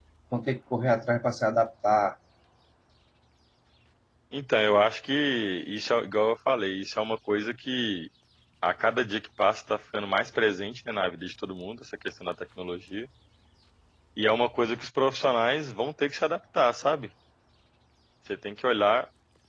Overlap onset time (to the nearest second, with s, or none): none